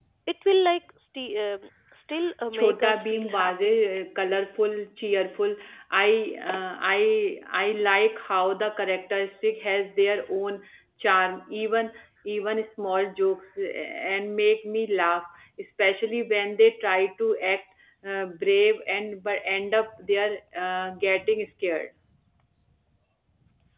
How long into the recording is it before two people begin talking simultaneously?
2.5 s

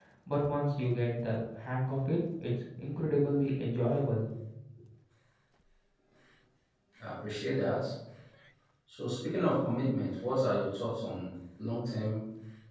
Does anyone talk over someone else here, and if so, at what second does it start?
none

